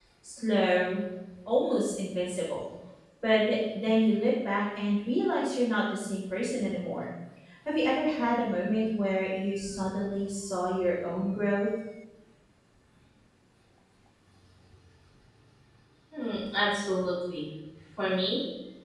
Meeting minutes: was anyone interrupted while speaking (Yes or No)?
No